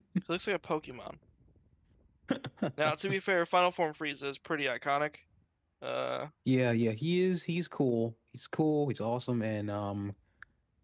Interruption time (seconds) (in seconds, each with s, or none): none